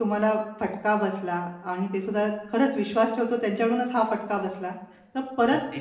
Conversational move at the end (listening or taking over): listening